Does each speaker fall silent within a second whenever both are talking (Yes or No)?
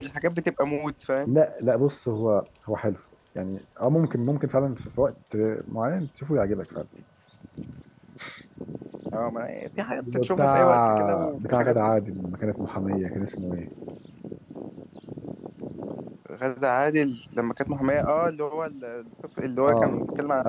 No